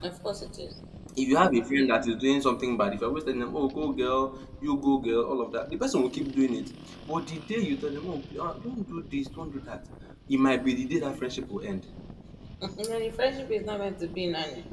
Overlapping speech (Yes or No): No